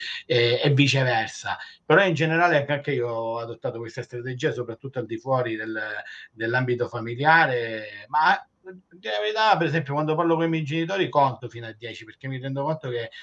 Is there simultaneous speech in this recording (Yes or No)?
No